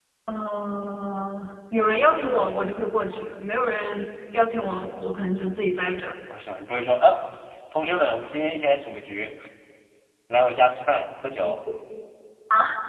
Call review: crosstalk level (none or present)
none